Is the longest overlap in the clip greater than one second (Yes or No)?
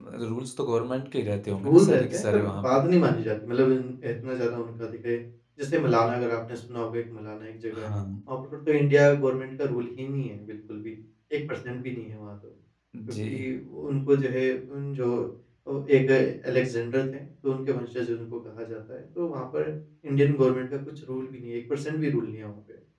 Yes